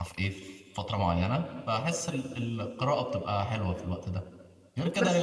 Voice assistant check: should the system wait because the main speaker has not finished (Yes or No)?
Yes